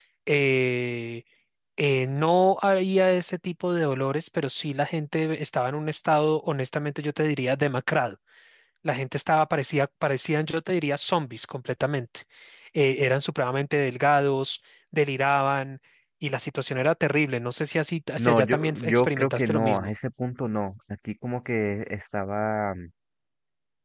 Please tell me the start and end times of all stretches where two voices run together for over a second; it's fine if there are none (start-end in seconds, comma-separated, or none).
18.2-19.9